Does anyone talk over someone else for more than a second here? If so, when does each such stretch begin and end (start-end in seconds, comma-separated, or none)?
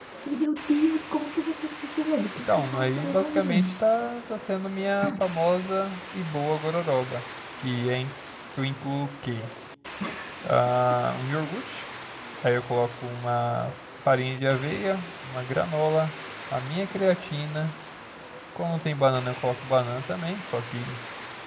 2.5-3.8